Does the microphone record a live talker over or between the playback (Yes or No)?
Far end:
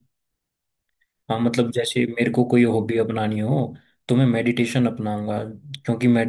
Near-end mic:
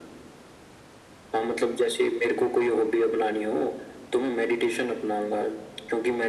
No